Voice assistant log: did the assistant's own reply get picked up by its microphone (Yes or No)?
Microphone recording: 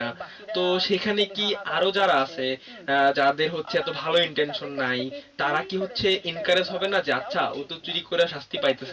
Yes